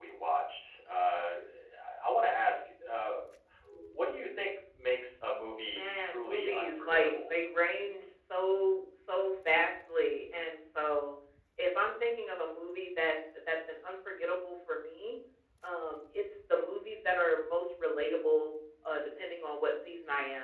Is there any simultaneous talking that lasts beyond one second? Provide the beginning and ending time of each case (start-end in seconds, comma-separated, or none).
5.6-7.3